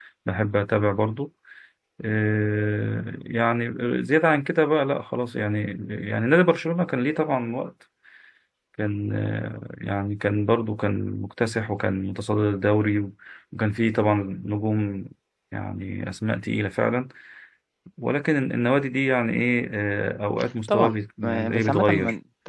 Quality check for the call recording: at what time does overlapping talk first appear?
21 s

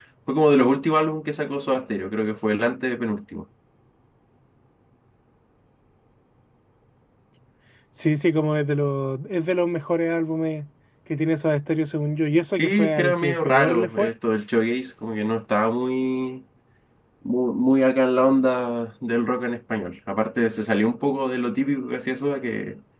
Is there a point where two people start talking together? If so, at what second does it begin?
13 s

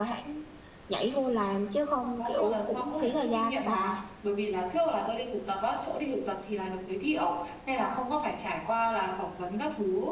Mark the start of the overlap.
2 s

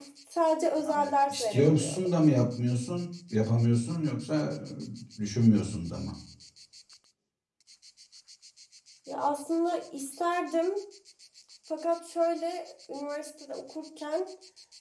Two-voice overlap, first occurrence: 1 s

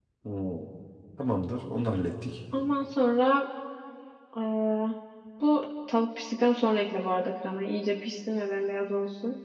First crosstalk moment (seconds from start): none

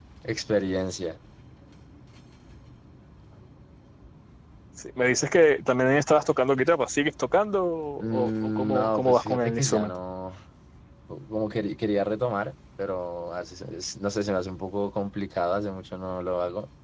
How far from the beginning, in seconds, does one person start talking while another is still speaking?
8 s

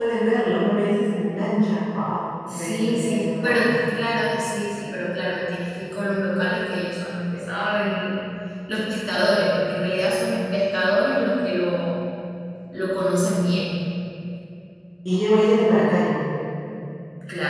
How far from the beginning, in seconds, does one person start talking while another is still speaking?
2 s

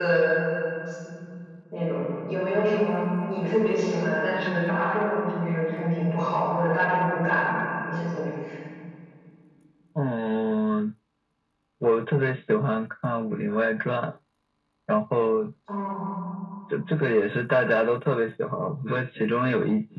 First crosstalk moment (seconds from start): none

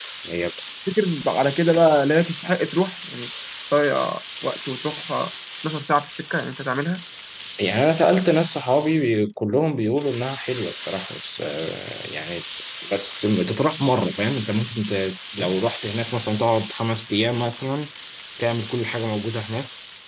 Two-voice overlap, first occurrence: none

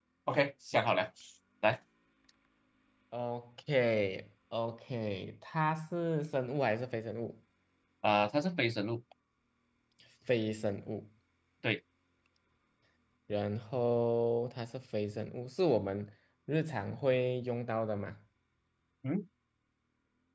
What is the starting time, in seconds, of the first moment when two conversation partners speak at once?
none

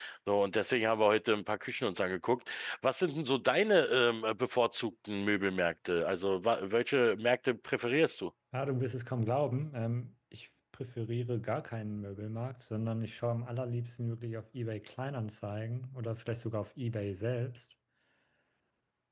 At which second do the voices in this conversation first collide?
none

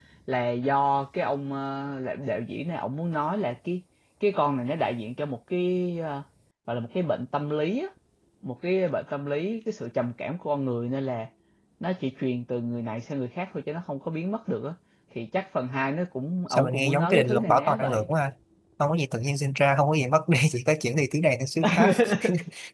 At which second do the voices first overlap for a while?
16 s

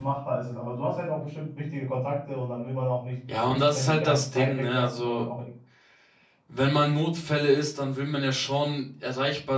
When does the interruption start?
4 s

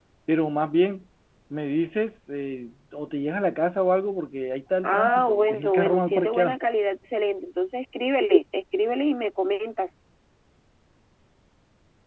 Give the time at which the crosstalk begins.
5 s

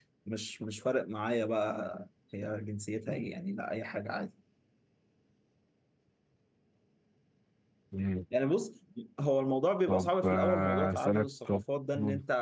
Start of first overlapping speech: 10 s

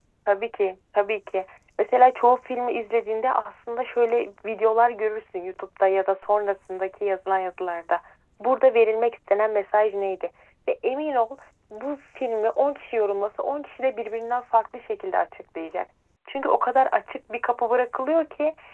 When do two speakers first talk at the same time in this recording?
none

